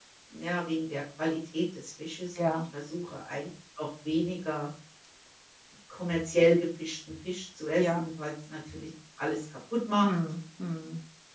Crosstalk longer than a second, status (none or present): none